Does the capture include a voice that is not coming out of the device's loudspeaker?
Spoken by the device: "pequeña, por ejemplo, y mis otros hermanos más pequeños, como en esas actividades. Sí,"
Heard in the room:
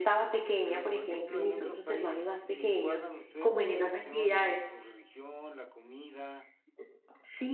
Yes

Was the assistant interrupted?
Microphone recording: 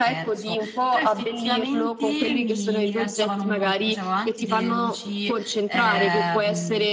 Yes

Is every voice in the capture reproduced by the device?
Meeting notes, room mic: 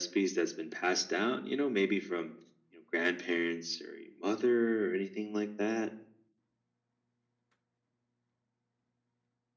Yes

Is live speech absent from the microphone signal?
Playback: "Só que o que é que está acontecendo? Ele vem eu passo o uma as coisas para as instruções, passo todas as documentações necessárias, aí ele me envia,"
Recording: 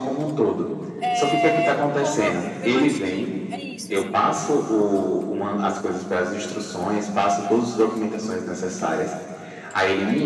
No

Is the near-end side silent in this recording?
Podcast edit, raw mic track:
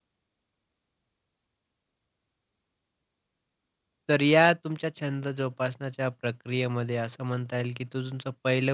No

